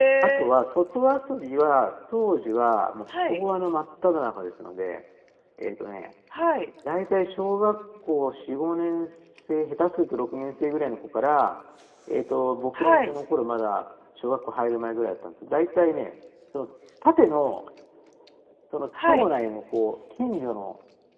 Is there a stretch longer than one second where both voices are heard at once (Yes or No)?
No